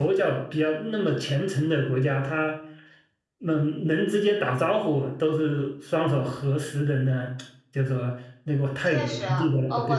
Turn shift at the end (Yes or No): Yes